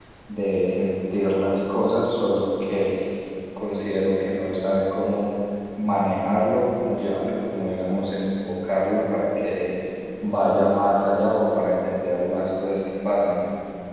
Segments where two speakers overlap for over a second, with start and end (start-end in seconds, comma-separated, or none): none